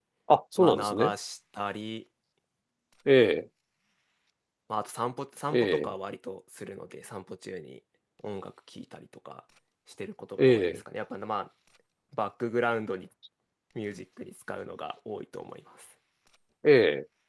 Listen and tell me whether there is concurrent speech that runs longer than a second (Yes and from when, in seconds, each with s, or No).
No